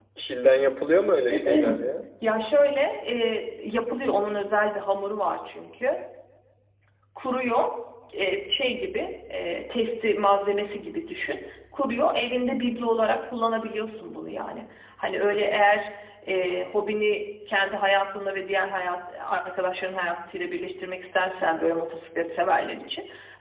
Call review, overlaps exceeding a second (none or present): none